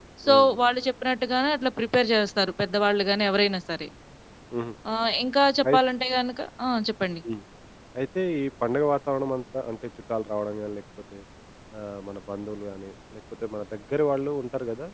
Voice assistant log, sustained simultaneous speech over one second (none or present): none